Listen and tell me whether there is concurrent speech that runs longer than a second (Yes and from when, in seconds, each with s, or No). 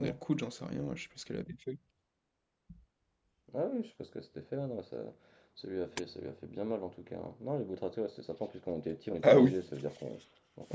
No